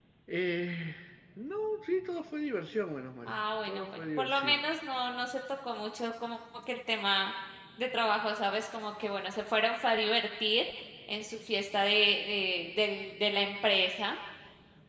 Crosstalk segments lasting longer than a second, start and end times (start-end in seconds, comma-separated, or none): 3.2-4.7